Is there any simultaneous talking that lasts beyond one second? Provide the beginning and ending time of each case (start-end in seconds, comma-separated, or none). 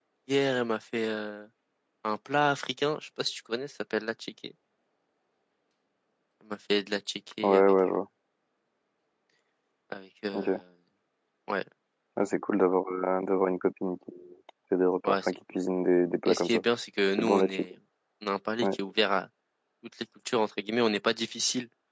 none